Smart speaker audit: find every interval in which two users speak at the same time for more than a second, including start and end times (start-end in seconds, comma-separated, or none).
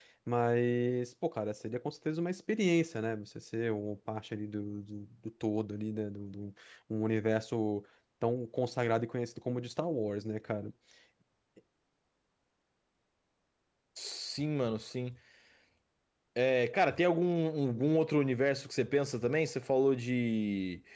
none